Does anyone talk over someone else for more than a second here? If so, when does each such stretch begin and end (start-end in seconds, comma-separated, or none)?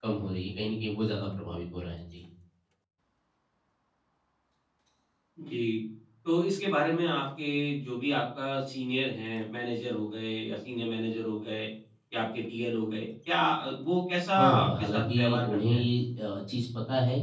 14.4-15.8